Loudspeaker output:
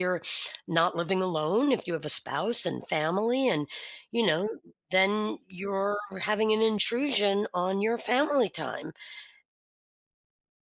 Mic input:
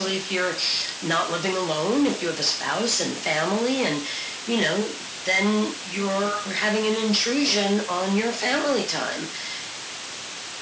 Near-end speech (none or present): none